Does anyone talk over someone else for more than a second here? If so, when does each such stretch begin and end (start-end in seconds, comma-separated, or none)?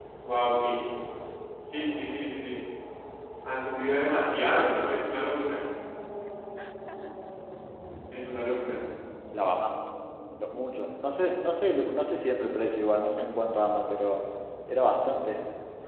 none